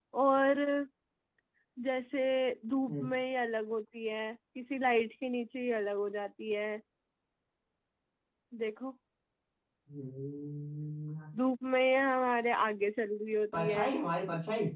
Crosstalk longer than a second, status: none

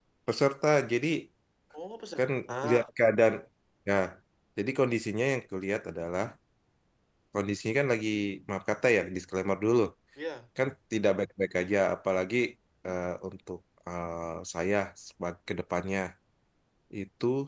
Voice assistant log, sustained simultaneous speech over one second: none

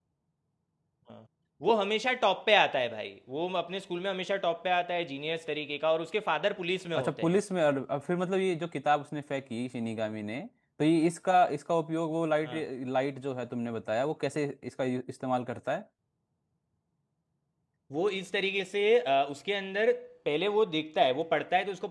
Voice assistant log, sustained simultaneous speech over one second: none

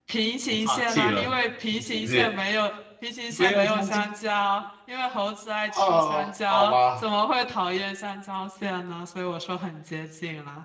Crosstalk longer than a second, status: present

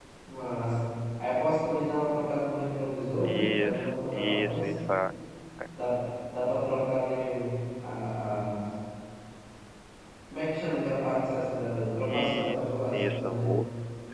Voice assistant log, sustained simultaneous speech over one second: present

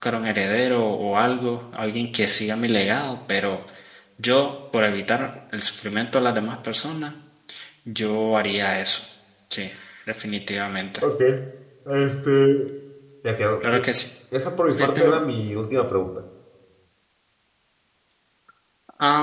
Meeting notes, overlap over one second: none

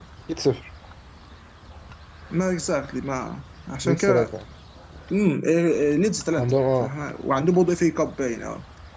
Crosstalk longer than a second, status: none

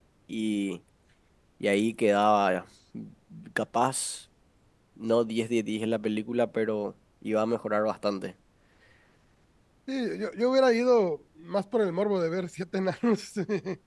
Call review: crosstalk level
none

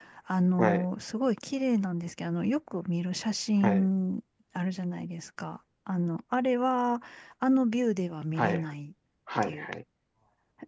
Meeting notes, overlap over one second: none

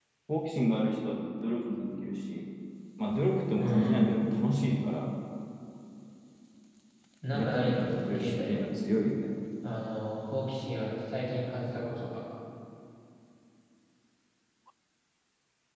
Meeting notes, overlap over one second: present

